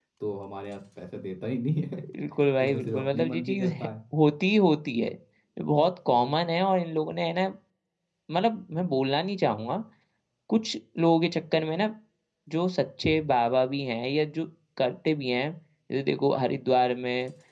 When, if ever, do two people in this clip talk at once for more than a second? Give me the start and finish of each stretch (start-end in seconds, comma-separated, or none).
2.6-3.9